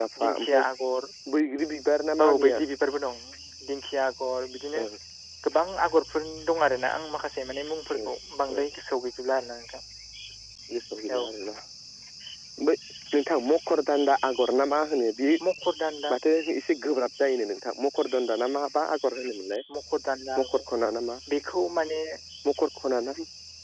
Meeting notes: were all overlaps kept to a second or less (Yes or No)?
Yes